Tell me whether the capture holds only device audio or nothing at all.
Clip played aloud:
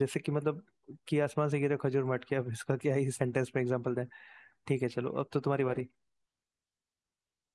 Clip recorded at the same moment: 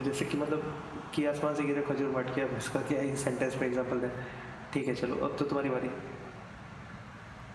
Yes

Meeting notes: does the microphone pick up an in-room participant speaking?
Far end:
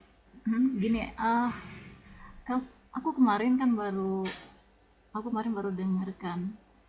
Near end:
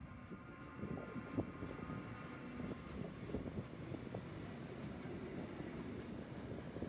No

